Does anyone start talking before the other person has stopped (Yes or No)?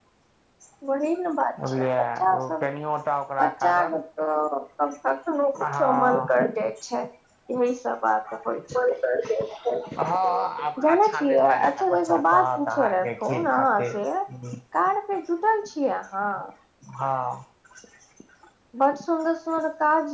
Yes